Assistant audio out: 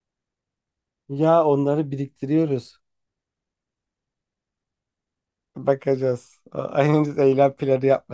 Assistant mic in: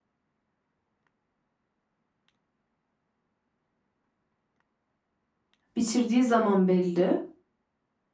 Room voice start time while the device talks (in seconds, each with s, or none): 5.8 s